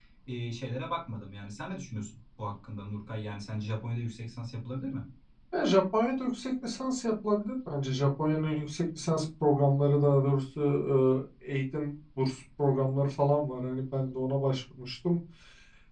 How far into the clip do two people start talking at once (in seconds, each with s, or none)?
none